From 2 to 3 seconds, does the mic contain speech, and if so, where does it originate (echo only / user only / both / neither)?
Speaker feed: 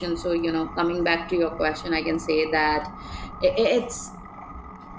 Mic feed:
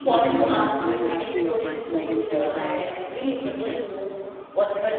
both